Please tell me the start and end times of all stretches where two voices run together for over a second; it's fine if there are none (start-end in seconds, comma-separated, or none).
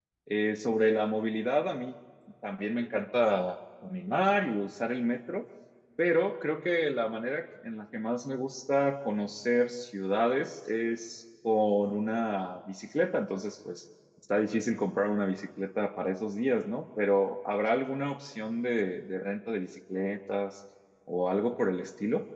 none